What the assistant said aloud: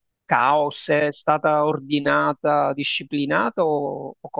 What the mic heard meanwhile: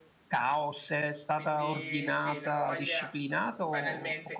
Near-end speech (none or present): present